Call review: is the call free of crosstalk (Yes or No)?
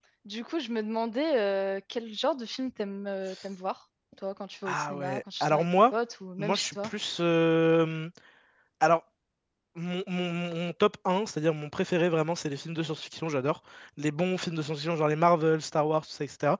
No